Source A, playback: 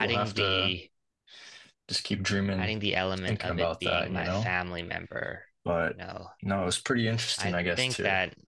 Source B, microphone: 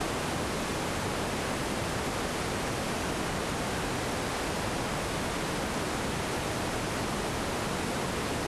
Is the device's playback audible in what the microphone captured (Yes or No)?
No